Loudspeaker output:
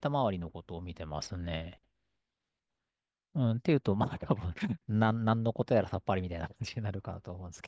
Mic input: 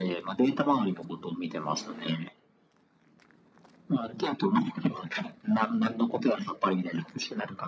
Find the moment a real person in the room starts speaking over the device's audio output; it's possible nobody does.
none

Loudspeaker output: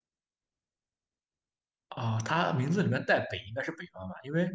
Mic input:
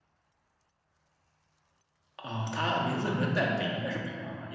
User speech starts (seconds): none

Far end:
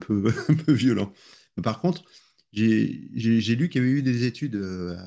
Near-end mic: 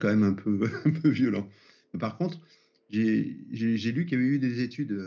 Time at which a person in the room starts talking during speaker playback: none

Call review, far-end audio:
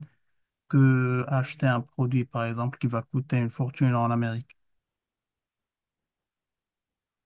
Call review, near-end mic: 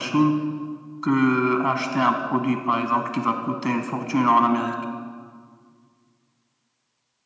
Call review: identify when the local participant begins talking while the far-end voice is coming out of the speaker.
none

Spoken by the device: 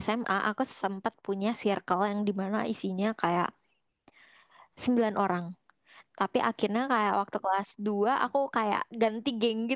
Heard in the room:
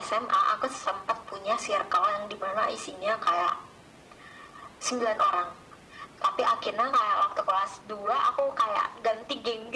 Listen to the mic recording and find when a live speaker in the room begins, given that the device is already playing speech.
none

